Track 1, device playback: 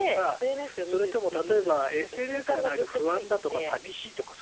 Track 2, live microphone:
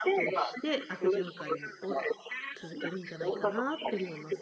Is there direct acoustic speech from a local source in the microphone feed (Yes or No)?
Yes